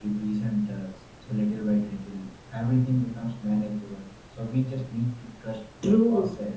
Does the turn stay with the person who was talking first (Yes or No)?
No